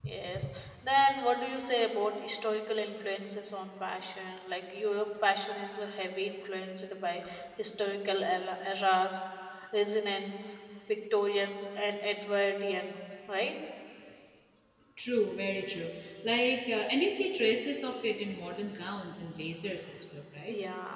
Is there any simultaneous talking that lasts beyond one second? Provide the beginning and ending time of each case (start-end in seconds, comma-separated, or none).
none